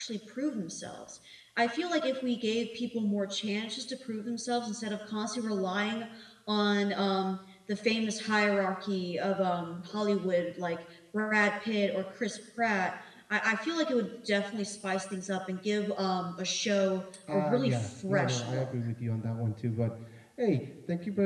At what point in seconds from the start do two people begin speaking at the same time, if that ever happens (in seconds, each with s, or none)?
17.3 s